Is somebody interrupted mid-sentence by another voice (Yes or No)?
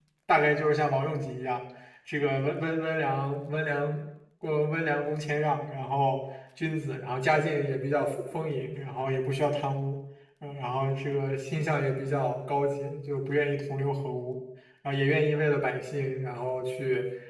No